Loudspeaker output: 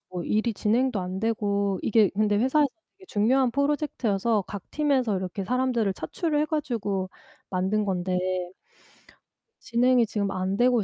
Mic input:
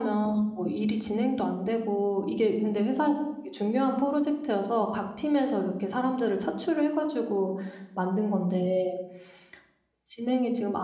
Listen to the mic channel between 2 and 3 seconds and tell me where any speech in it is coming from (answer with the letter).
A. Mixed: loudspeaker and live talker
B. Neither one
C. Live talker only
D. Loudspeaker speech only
D